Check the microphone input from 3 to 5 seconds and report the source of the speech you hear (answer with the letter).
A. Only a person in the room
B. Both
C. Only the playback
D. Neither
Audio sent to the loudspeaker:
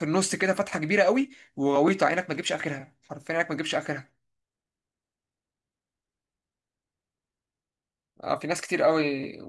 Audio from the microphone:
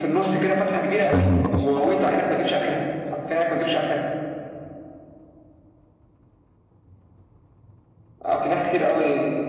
C